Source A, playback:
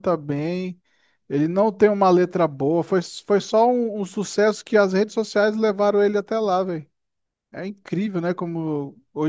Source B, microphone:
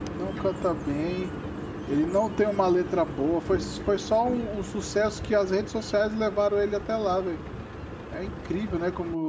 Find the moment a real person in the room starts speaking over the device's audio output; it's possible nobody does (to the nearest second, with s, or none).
none